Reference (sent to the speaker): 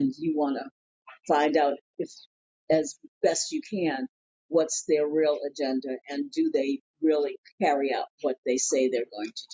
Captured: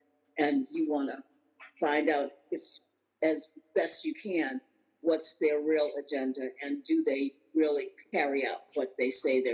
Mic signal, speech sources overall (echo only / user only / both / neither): echo only